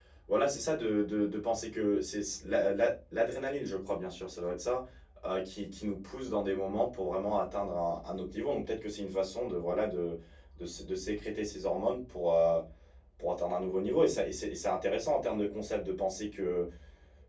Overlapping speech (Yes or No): No